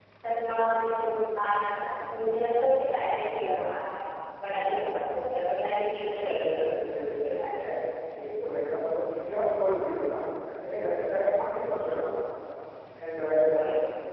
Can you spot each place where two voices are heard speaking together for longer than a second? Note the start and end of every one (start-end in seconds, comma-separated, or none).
6.0-7.7